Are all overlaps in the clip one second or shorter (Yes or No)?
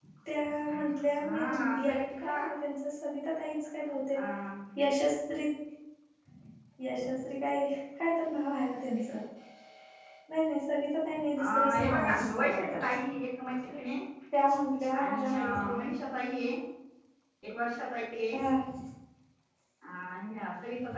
No